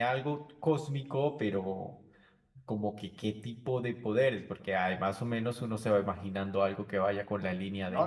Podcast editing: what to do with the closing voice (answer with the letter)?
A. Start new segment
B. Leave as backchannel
A